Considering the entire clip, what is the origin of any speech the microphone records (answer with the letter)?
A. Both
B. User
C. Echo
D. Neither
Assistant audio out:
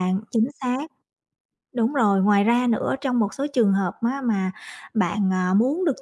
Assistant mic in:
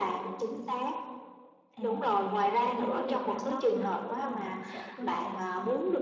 A